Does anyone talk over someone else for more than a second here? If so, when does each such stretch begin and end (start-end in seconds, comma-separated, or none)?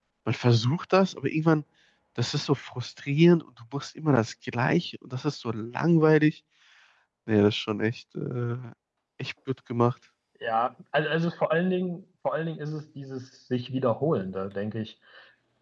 none